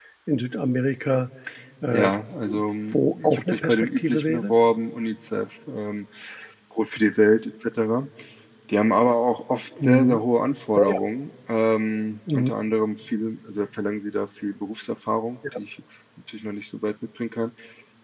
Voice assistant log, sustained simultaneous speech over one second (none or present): present